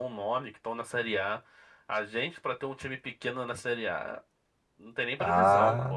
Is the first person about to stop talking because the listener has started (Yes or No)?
Yes